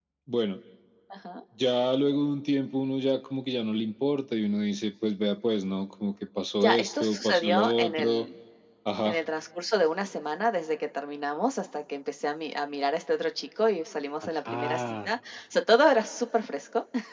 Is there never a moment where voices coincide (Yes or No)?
No